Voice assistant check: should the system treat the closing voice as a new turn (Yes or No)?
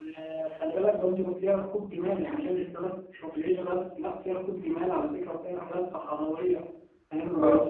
Yes